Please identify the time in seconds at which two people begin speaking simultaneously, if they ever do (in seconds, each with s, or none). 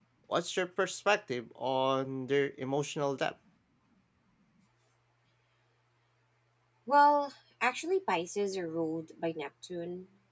none